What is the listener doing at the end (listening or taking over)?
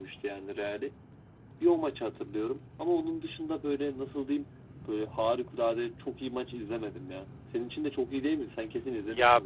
taking over